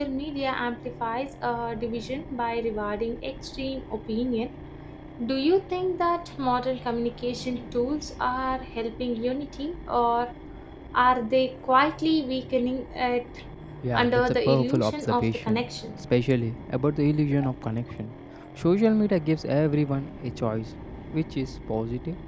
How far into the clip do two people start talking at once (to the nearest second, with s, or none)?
14 s